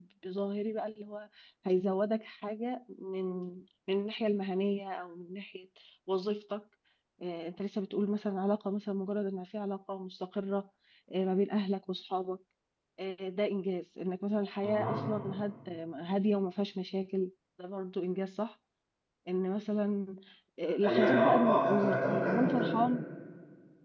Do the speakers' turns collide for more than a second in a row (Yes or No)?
Yes